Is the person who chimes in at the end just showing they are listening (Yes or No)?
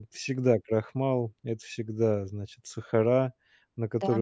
Yes